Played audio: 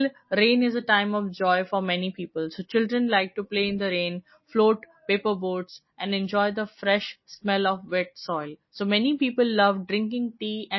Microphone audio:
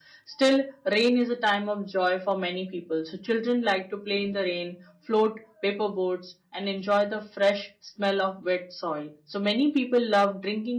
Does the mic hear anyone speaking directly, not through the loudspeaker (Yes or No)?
No